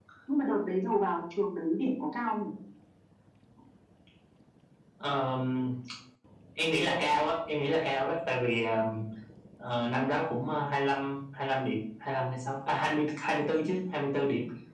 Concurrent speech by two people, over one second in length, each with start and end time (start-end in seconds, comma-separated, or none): none